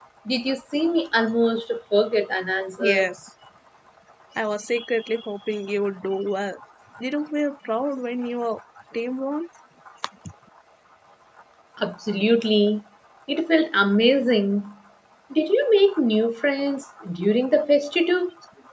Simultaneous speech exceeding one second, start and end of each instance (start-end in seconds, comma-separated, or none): none